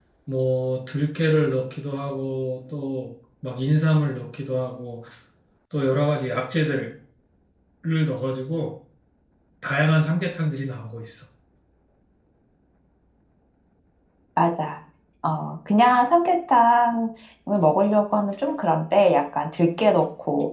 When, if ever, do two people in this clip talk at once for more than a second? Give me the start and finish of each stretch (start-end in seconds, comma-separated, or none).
none